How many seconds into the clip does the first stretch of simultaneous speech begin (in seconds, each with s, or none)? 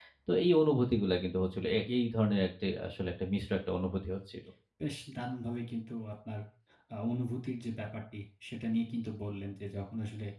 none